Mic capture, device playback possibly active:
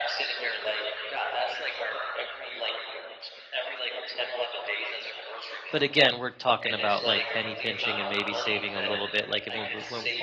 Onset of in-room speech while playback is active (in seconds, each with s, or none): 5.7 s